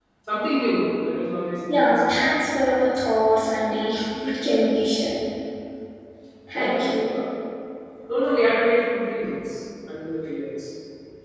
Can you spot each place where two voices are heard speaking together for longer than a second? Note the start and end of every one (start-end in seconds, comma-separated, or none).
none